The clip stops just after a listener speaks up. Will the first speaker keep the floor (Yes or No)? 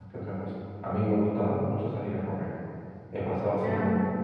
Yes